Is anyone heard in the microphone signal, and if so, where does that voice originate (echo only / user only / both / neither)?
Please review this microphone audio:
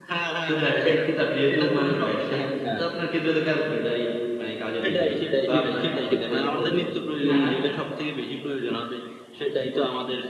both